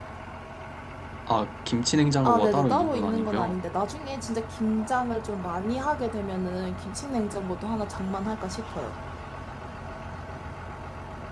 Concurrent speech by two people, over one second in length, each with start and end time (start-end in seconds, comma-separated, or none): 2.2-3.5